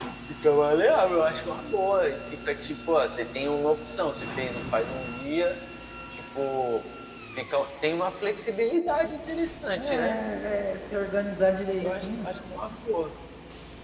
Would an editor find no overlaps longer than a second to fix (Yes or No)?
Yes